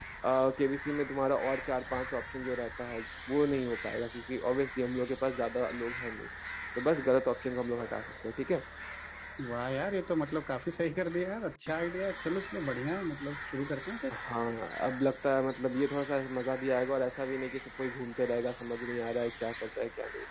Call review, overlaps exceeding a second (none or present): none